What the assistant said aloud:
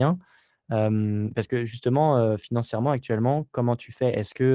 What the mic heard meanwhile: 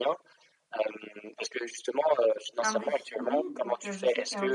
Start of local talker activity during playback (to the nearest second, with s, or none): 3 s